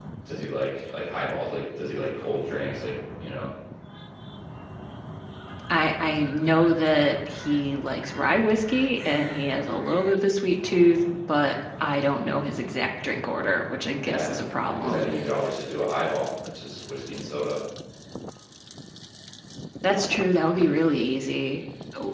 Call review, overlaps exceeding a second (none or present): none